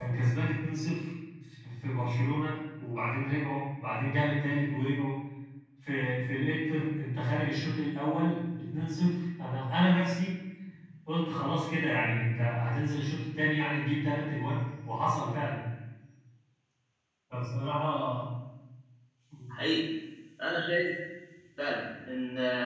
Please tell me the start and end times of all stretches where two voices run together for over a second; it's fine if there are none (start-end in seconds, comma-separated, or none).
none